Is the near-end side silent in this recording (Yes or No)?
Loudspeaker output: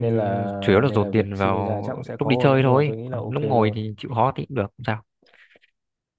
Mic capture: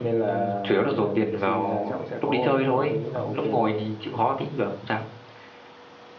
Yes